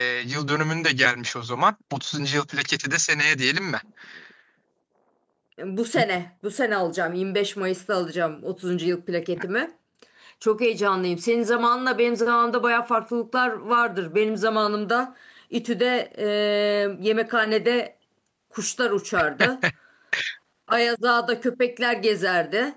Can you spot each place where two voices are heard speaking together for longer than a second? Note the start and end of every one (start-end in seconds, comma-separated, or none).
none